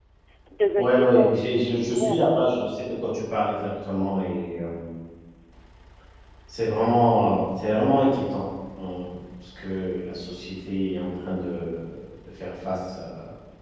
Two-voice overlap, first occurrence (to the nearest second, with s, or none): 1 s